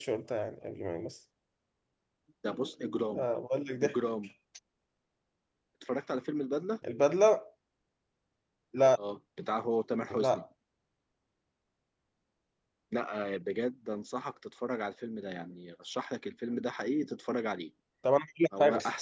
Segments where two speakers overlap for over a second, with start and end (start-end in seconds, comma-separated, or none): none